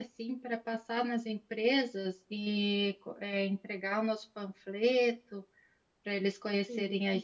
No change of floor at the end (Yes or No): Yes